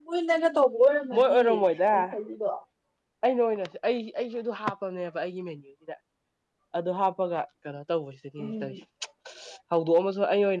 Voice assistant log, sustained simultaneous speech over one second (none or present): none